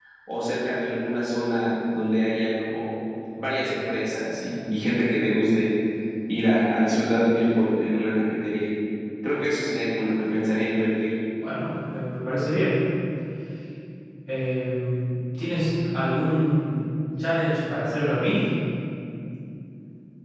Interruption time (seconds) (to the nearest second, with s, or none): none